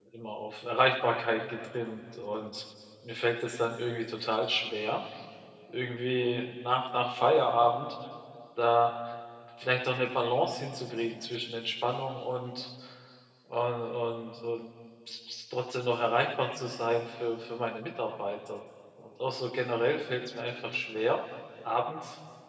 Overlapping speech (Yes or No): No